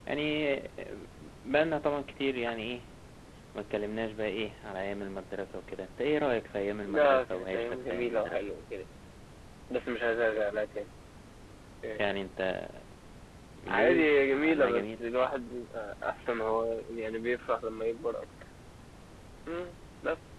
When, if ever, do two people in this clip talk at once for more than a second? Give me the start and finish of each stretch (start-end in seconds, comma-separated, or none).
6.8-8.4, 13.7-15.0